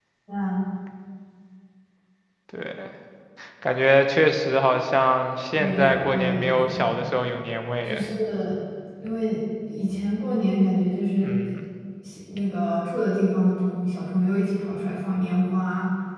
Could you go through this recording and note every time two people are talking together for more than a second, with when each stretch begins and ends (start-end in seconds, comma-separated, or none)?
5.5-7.0